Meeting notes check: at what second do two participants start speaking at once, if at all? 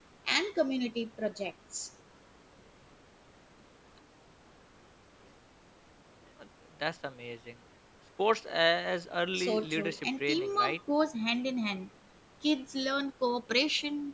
9.4 s

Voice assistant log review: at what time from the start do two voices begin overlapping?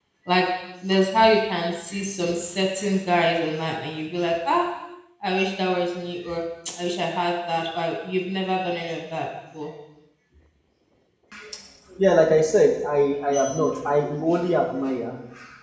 none

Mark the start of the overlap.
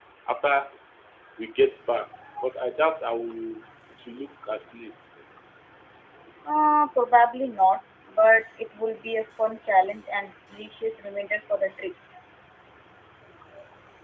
none

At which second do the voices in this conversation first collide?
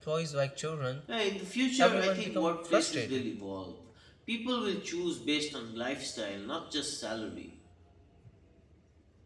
1.8 s

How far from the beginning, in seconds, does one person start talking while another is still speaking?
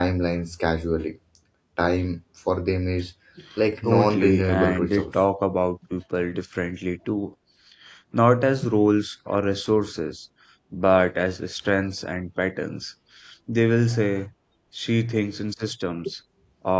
3.8 s

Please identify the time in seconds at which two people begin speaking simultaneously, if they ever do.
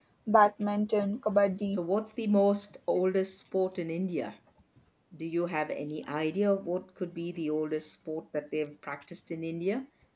none

